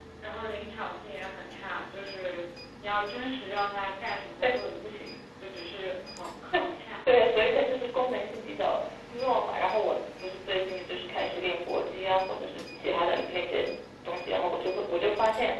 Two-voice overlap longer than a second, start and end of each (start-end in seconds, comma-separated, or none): none